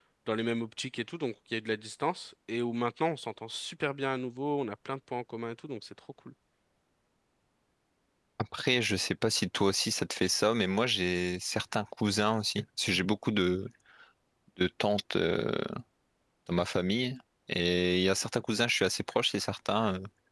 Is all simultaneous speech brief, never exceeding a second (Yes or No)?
Yes